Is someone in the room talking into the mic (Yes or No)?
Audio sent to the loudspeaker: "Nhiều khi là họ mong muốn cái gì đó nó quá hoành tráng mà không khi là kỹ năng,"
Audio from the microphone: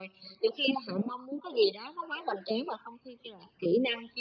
No